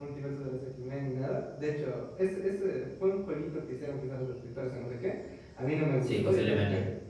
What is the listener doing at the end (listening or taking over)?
listening